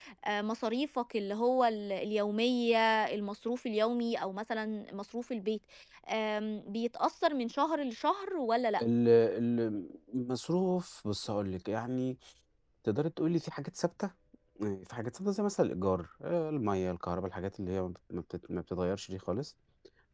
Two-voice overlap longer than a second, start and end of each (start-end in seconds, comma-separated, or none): none